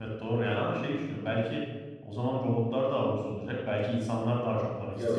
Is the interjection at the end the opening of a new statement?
Yes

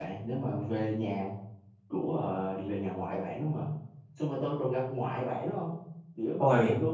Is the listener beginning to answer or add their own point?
No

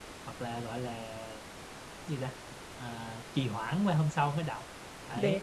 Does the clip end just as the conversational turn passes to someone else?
No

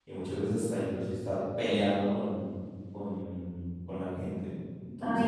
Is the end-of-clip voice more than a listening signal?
Yes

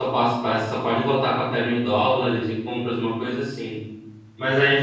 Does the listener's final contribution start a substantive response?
No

